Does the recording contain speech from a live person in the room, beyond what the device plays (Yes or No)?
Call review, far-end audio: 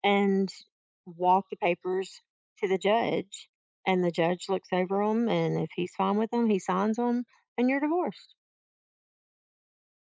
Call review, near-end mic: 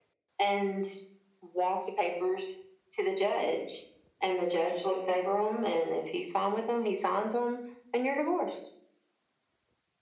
No